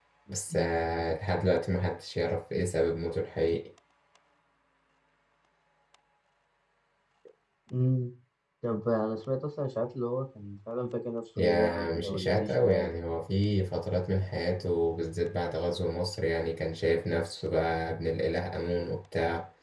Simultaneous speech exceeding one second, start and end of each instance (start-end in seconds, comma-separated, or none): 11.4-12.9